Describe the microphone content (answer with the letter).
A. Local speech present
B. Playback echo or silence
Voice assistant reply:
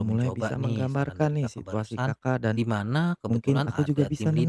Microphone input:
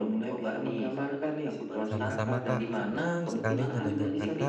A